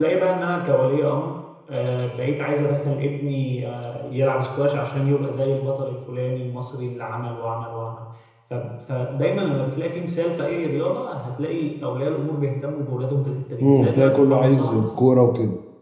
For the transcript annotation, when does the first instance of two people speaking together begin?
14 s

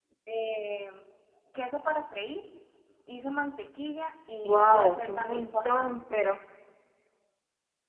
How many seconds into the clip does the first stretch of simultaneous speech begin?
4 s

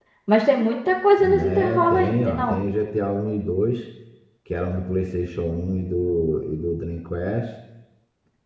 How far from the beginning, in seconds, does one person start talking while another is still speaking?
1 s

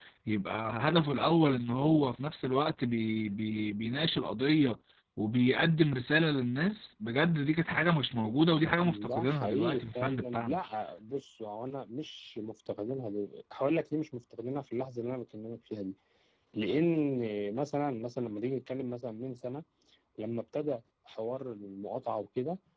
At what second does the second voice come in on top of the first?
9 s

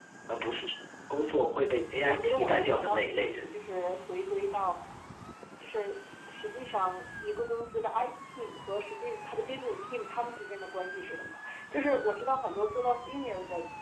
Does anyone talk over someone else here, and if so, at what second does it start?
2 s

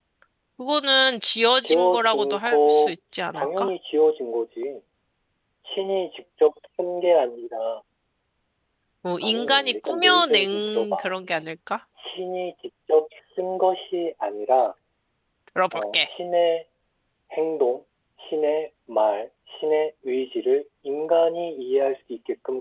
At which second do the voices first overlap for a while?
2 s

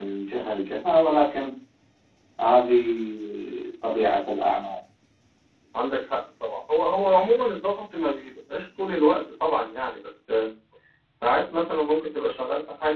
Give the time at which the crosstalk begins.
none

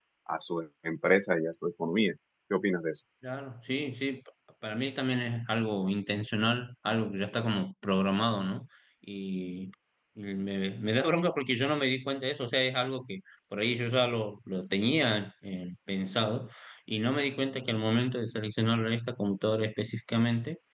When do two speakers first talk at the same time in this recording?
none

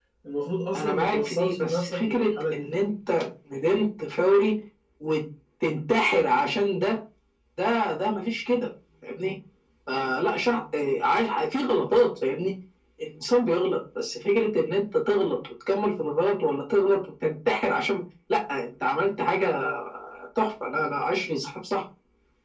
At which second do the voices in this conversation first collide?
1 s

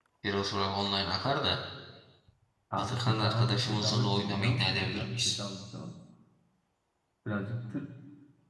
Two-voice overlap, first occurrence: 3 s

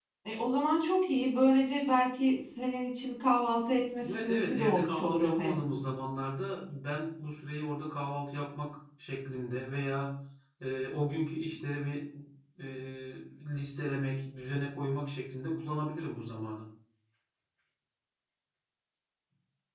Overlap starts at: 4 s

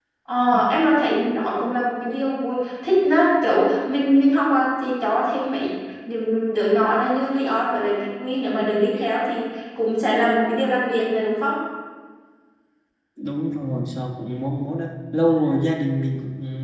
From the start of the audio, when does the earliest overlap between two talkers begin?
none

